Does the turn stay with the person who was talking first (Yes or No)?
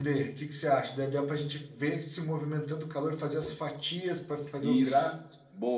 No